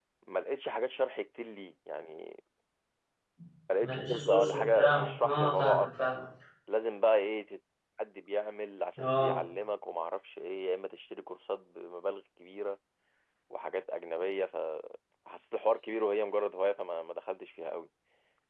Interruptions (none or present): present